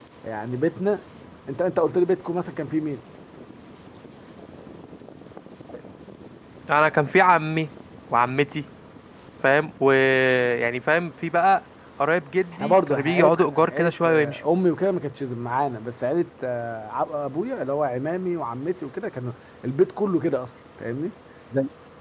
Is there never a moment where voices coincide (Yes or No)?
No